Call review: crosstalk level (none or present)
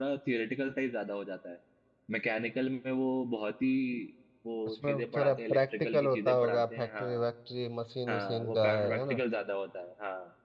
present